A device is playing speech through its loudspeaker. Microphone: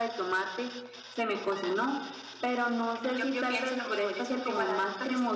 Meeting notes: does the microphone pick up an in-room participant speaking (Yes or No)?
No